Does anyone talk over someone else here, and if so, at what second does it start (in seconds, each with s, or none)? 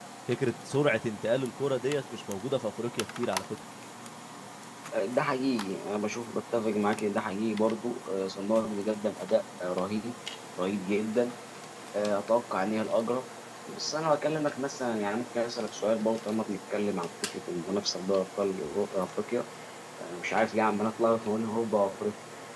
none